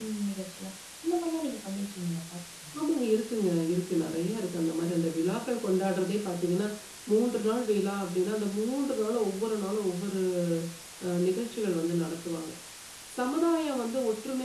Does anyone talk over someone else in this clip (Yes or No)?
No